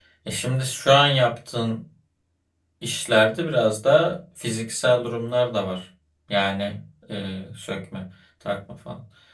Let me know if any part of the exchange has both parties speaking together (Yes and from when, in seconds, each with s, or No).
No